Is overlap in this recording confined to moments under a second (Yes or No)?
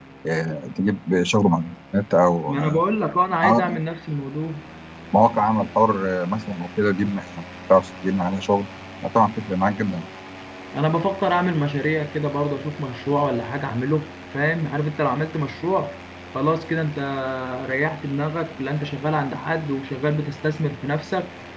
Yes